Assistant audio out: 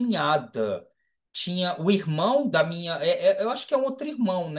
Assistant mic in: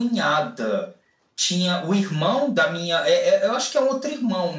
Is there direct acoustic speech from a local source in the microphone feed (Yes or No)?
No